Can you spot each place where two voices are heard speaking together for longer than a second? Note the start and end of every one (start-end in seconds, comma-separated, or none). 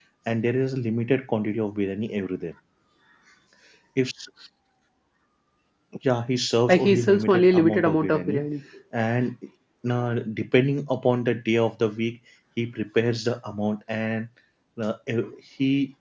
6.7-8.4